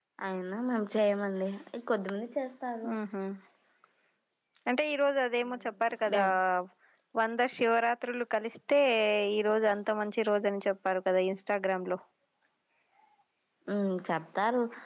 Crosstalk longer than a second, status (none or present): none